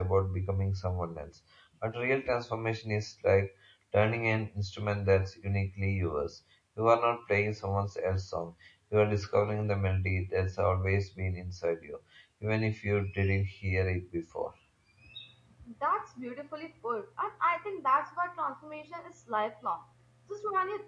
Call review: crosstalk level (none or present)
none